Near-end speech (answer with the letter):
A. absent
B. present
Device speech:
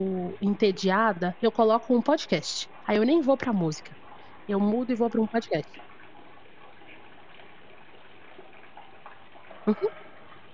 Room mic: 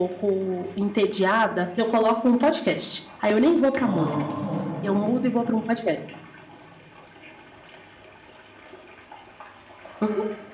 B